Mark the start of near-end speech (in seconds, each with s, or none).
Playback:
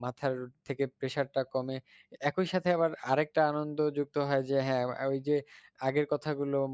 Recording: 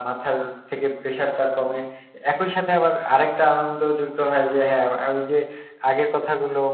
none